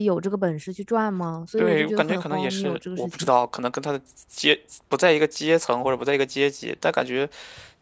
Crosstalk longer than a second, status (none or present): present